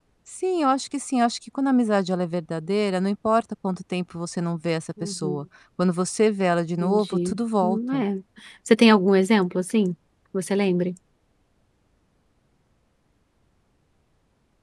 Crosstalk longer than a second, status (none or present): present